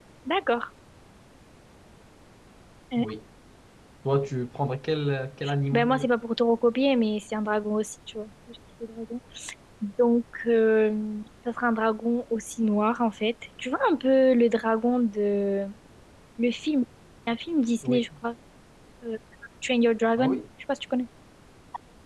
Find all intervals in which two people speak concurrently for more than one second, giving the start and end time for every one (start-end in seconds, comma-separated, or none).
none